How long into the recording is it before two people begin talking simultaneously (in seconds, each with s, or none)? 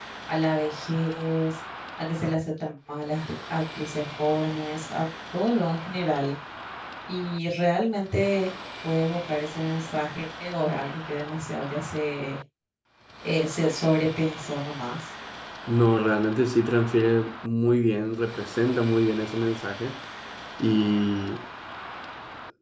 none